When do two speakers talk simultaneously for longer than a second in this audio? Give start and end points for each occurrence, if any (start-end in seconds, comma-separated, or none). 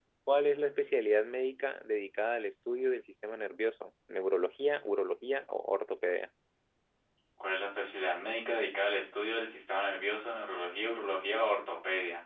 none